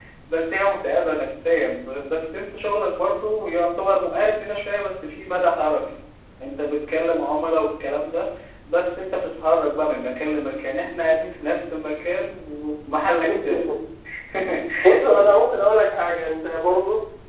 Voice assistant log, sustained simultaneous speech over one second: none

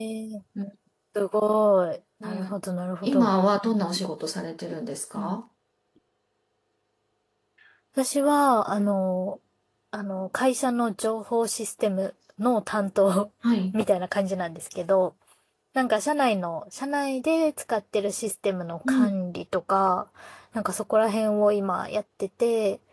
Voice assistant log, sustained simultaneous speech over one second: none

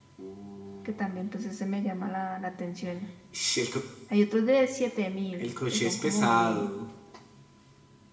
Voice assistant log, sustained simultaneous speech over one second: present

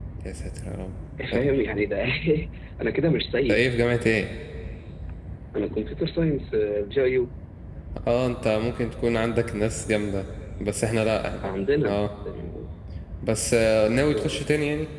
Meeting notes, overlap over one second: none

